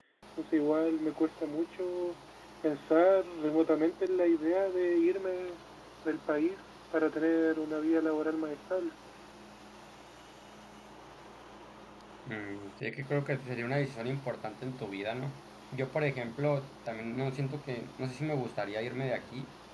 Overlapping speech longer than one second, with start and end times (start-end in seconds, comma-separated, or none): none